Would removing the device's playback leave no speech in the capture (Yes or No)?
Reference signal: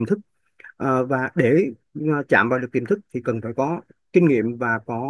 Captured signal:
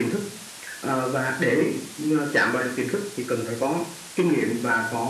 Yes